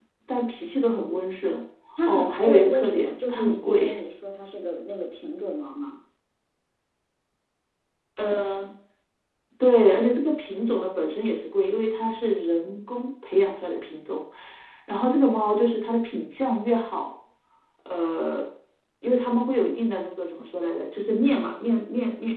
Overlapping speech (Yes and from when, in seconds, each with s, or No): Yes, from 2.1 s